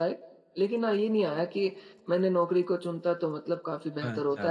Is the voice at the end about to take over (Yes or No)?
No